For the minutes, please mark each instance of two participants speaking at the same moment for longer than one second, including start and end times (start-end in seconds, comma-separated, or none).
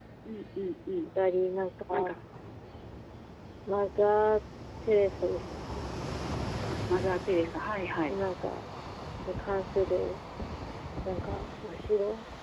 none